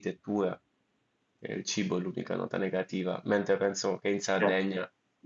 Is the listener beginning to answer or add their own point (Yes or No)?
Yes